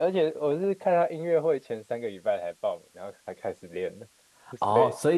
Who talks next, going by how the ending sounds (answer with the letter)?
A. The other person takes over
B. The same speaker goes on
A